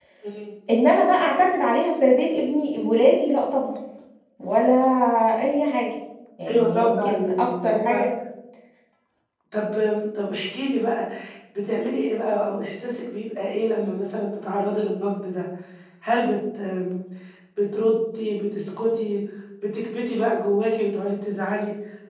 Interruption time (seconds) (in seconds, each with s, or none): 6.5 s